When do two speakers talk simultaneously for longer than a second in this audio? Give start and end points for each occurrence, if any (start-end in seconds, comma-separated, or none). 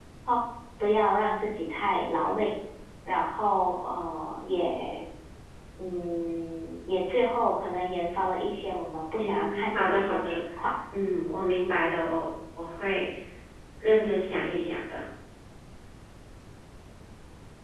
9.2-10.4